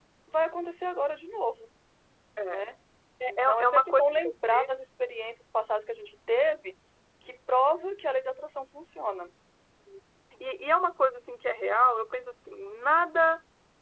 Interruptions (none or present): present